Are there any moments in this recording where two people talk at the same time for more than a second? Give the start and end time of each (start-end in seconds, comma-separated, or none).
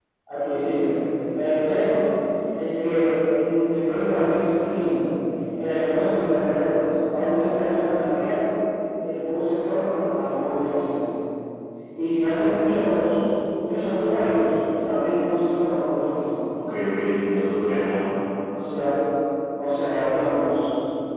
none